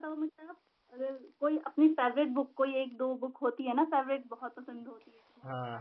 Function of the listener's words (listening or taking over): taking over